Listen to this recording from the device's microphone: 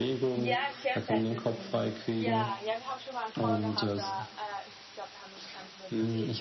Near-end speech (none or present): present